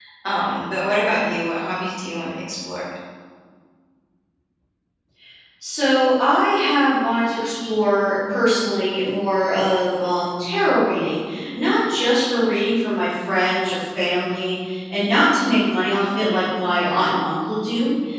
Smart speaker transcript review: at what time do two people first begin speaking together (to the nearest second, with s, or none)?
none